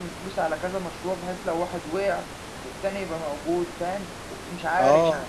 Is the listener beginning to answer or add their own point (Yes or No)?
Yes